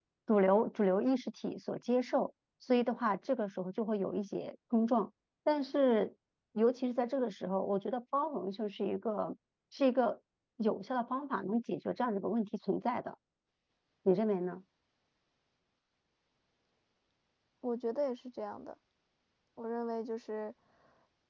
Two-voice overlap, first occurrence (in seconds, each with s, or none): none